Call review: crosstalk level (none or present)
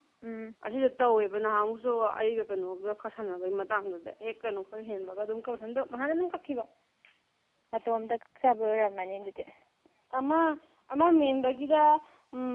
none